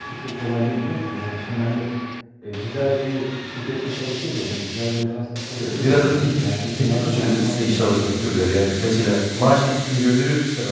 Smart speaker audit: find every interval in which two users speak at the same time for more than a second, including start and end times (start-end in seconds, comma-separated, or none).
5.6-8.4